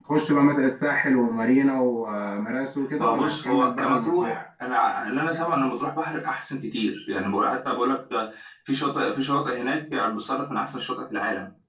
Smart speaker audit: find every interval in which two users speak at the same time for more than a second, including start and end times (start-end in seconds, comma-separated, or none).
3.0-4.4